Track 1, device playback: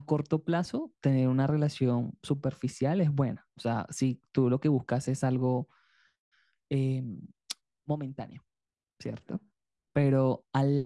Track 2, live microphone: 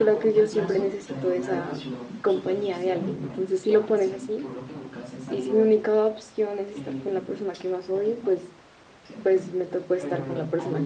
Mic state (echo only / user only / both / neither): both